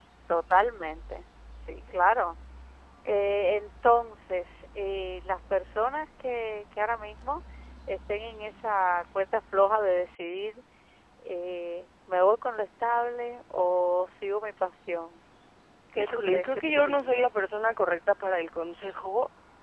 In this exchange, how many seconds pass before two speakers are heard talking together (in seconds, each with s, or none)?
16.0 s